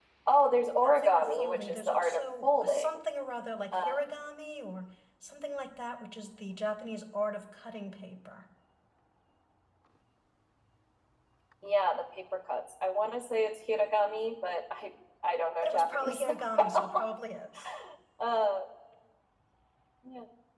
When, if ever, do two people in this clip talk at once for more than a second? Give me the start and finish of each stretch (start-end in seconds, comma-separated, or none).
0.8-3.0, 15.6-17.1